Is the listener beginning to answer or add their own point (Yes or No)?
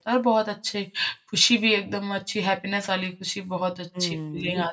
Yes